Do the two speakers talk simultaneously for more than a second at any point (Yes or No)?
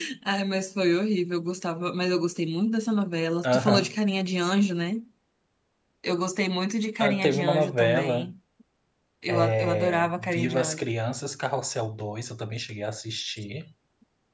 Yes